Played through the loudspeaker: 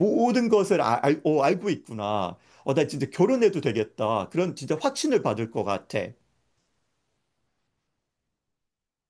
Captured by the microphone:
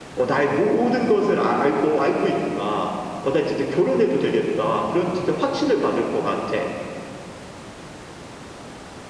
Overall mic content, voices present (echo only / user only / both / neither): echo only